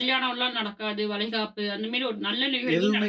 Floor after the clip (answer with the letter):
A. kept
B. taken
B